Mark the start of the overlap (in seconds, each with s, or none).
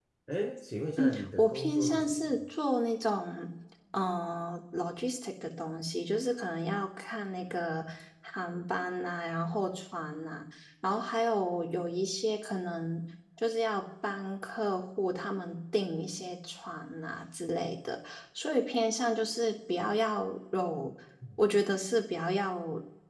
1.0 s